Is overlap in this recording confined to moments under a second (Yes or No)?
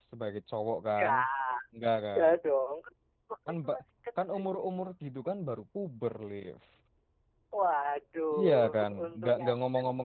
No